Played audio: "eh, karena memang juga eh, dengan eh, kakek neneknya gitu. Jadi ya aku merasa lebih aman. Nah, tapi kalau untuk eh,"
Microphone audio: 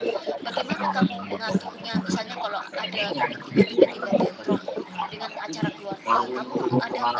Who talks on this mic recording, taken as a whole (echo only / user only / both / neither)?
both